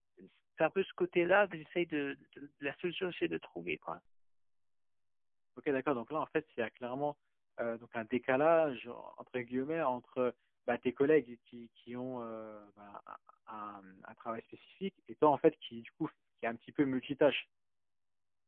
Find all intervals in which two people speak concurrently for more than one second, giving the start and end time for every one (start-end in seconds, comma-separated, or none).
none